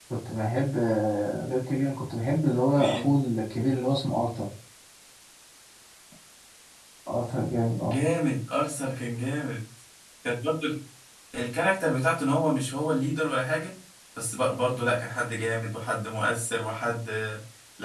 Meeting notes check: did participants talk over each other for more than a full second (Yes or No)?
No